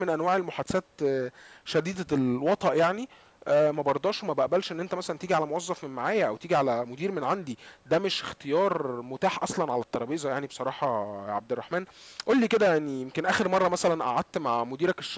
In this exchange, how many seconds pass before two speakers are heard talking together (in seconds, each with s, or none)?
none